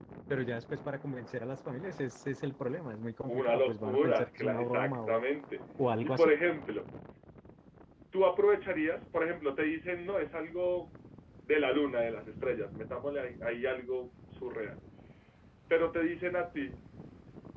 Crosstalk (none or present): present